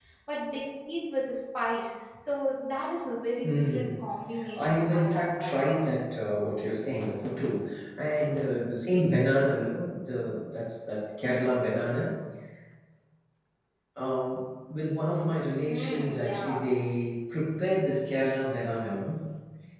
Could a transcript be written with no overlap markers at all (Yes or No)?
No